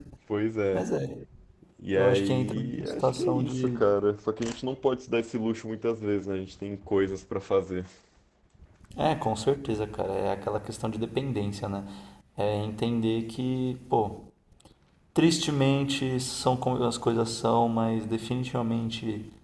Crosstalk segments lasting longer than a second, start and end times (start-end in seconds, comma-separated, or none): 2.0-3.8